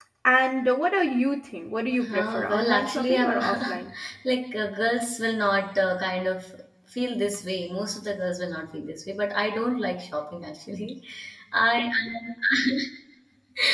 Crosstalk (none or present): present